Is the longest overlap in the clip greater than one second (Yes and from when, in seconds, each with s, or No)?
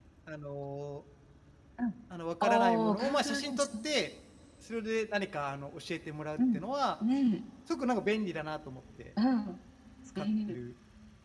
Yes, from 2.4 s